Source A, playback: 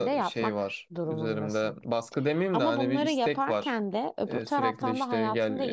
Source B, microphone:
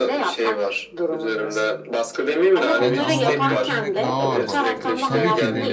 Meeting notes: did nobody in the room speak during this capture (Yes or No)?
No